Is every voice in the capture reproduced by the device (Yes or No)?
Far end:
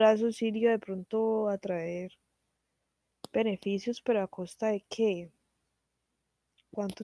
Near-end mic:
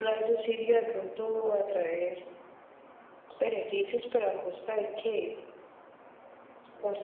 Yes